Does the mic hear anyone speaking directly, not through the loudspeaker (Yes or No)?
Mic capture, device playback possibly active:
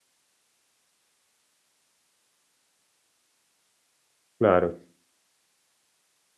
Yes